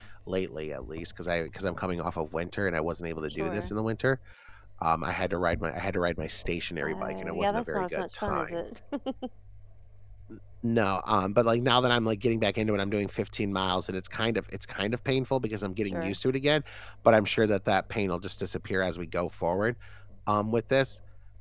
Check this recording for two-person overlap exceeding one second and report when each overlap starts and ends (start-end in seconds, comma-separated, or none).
6.8-8.6